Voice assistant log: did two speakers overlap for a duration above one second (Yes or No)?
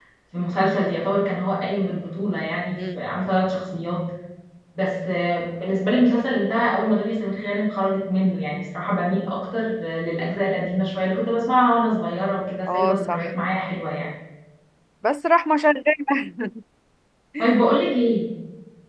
No